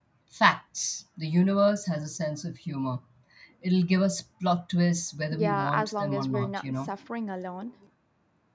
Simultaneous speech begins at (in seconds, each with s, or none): 5.3 s